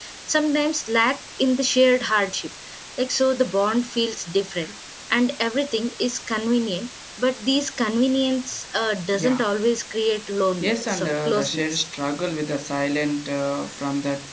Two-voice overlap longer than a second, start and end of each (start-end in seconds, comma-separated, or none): 10.6-11.9